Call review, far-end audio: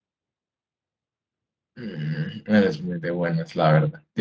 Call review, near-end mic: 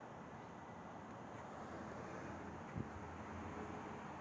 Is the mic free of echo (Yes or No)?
Yes